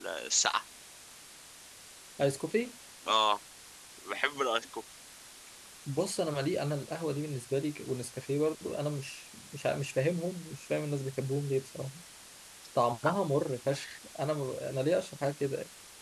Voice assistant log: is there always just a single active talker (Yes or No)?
Yes